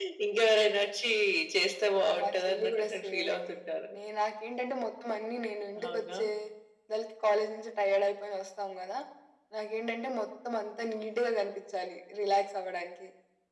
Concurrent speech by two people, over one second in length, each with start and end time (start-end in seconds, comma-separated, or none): 2.0-3.6